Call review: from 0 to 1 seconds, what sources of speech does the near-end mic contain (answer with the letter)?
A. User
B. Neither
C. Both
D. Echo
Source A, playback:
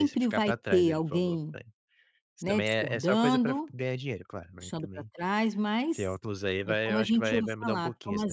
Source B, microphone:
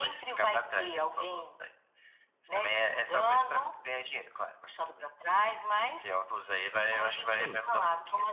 D